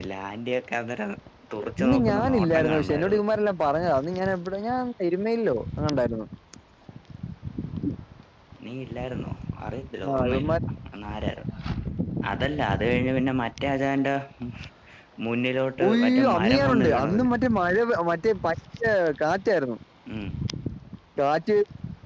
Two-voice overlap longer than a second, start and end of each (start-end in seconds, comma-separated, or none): 1.8-3.2, 15.8-17.2